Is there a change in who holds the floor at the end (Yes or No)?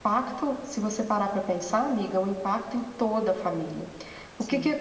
No